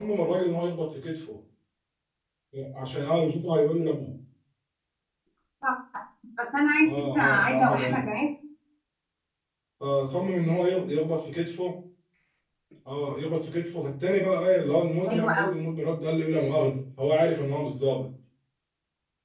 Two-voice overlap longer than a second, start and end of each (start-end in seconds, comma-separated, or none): 6.8-8.0